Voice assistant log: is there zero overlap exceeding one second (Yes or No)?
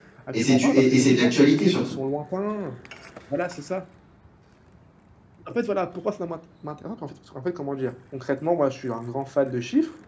No